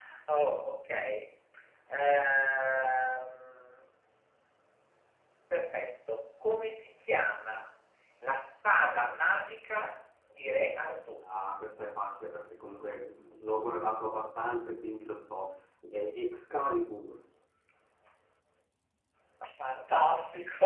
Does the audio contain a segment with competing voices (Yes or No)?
No